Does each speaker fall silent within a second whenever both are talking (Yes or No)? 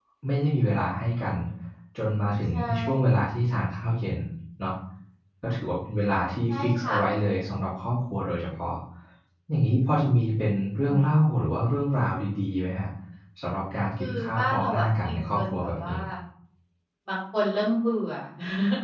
No